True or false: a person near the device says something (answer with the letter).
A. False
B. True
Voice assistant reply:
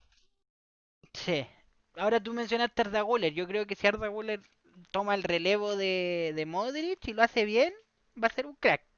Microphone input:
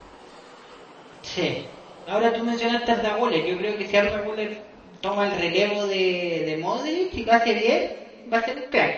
A